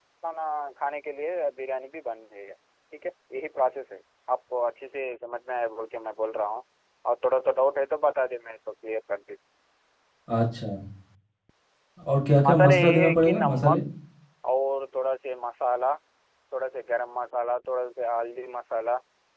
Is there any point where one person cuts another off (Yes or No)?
Yes